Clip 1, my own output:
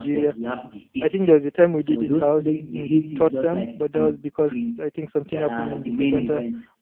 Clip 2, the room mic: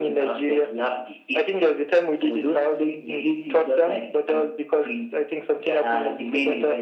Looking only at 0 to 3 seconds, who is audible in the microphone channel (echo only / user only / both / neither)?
echo only